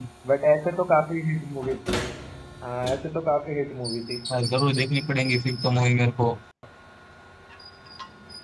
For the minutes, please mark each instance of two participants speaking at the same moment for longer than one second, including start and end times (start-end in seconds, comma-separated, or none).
none